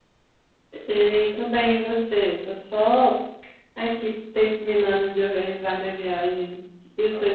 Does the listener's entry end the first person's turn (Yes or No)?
Yes